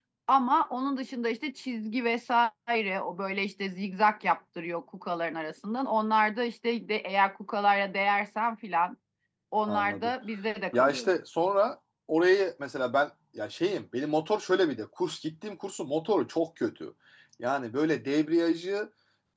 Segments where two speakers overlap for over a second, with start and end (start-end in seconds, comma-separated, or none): none